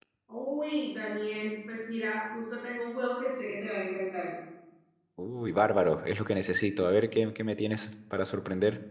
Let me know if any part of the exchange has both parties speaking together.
No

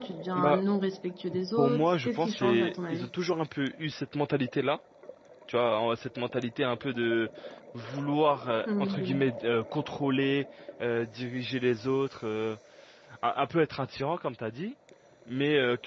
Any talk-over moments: Yes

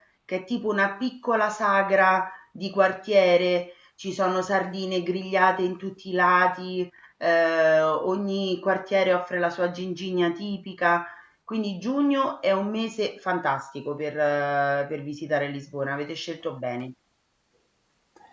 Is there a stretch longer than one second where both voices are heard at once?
No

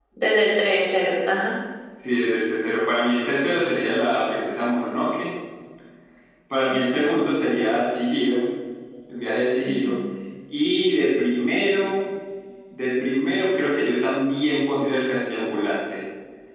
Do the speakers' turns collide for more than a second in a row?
No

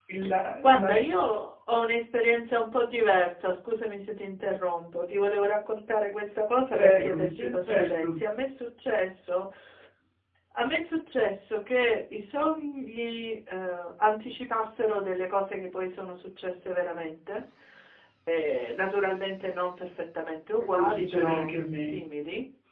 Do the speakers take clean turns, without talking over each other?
No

